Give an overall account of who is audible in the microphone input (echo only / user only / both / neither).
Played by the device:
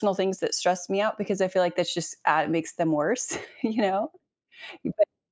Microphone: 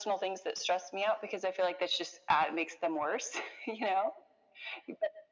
echo only